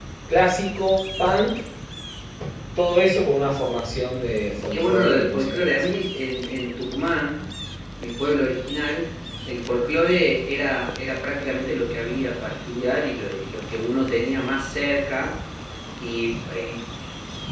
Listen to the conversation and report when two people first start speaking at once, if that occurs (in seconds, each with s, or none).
4.7 s